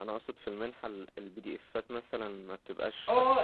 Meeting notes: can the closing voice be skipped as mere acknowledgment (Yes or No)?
No